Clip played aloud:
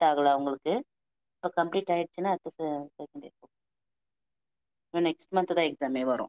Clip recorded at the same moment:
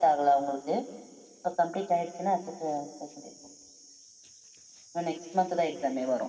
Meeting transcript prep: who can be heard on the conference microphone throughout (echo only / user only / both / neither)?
echo only